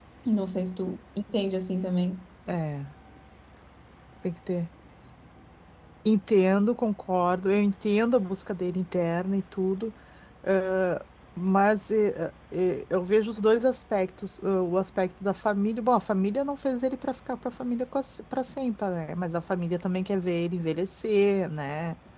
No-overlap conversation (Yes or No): Yes